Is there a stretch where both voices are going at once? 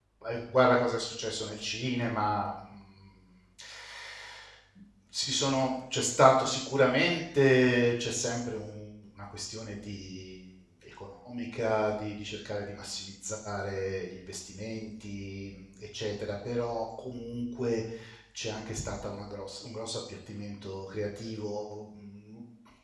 No

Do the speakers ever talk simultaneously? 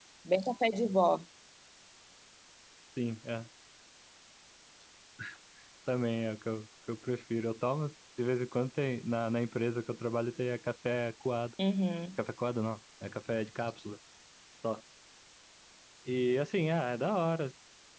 No

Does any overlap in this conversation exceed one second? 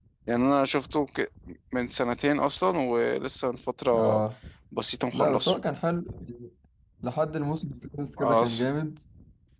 No

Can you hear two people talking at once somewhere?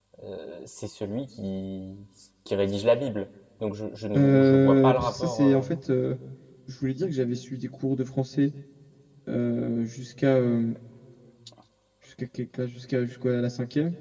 Yes, from 4.1 s

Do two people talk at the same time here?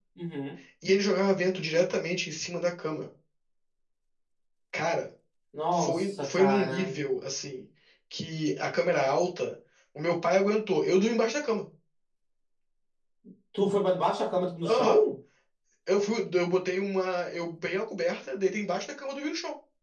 Yes, from 5.7 s

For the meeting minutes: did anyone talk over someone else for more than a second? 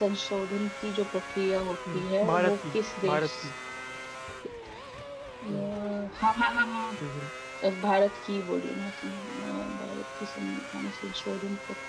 Yes, from 1.9 s

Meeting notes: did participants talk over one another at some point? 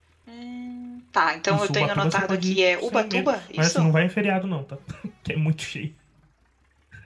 Yes, from 1.5 s

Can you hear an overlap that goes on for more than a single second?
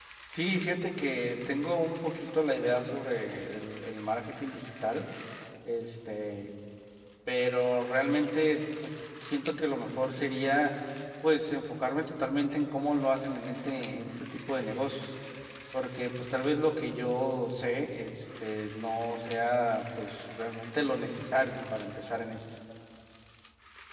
No

